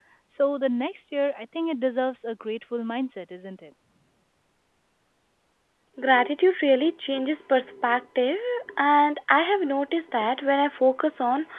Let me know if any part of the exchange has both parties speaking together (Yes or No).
No